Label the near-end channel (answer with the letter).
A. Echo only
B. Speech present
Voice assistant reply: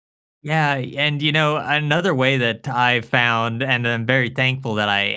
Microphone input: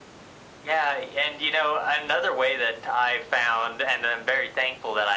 A